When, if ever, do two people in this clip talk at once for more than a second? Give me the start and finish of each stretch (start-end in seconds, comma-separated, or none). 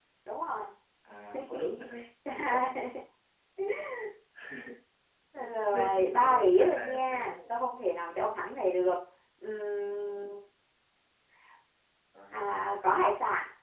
5.7-7.5